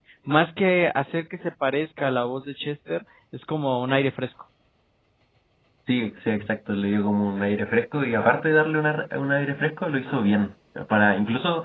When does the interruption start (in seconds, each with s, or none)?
none